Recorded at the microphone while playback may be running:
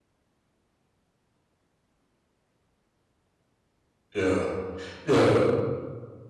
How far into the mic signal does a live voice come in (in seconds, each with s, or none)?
4.1 s